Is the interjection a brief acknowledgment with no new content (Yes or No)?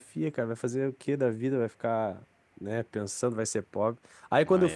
Yes